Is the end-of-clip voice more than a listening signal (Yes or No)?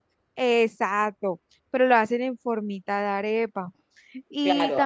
Yes